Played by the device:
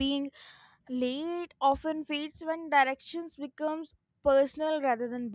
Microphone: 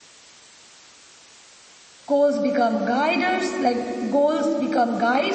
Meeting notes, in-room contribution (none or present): present